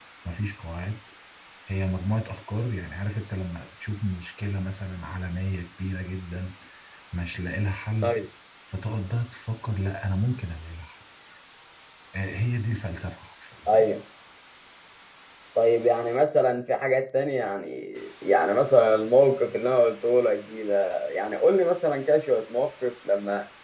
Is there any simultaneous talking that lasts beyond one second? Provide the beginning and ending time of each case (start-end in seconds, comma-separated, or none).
none